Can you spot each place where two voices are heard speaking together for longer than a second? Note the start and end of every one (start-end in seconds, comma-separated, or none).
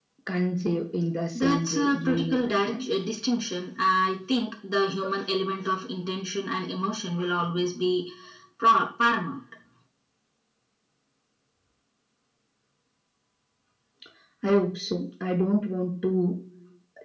1.4-2.9